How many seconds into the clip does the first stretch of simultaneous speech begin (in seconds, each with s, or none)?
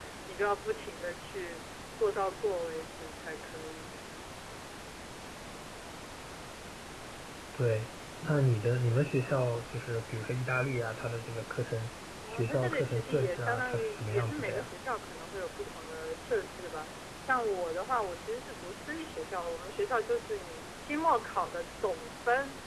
12.2 s